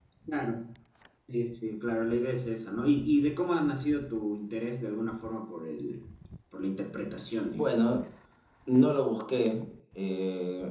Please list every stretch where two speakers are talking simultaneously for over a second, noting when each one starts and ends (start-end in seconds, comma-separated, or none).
none